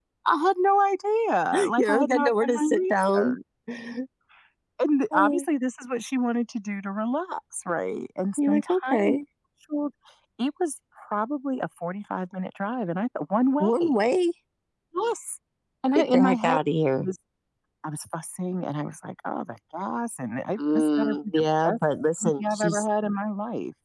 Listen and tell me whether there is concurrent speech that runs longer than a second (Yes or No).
Yes